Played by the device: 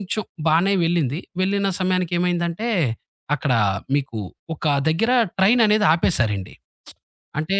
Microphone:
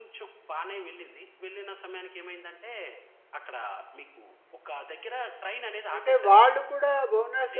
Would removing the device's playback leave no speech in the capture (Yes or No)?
No